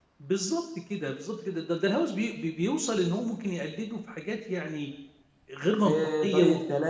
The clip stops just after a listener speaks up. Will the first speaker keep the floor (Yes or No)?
No